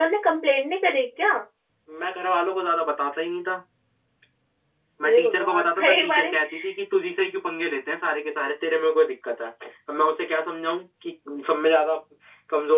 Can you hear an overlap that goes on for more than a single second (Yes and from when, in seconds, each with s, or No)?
Yes, from 5.0 s